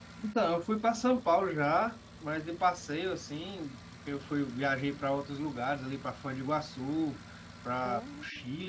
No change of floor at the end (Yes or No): Yes